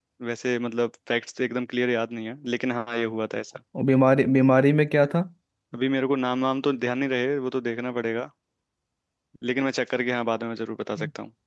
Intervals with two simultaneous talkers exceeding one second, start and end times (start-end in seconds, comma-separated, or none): none